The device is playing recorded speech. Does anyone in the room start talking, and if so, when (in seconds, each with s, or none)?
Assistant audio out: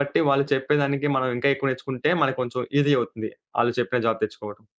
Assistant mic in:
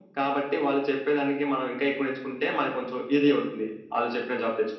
none